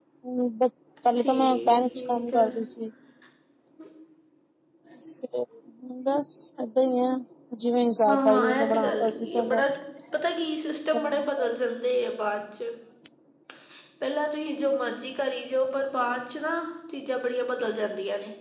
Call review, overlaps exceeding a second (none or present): present